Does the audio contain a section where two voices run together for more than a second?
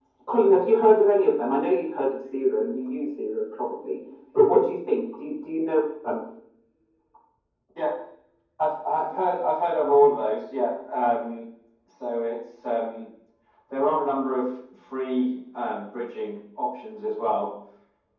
No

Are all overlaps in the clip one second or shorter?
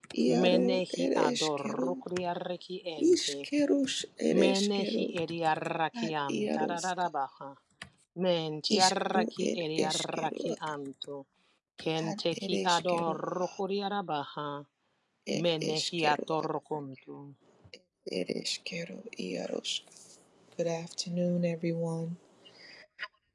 No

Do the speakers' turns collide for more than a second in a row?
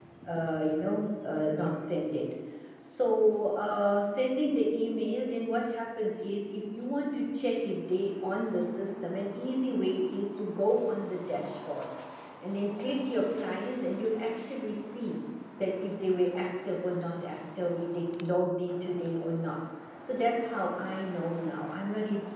No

